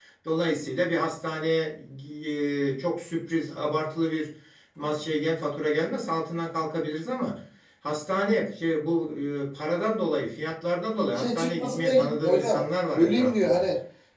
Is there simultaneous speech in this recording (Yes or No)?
Yes